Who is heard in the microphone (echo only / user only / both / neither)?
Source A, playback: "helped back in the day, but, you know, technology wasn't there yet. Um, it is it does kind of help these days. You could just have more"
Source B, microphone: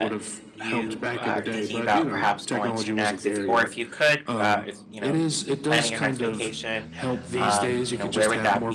both